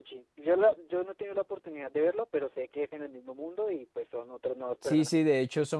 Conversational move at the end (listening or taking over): taking over